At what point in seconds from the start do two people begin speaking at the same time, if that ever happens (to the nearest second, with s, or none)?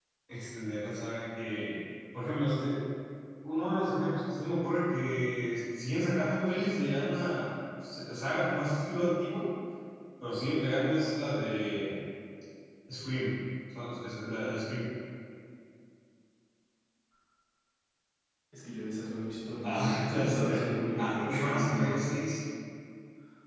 20 s